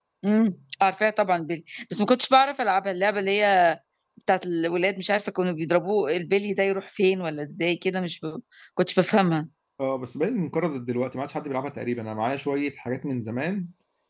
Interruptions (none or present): none